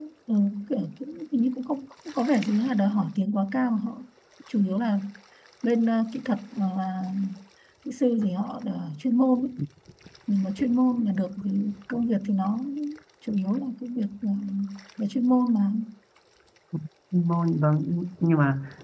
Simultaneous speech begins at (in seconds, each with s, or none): none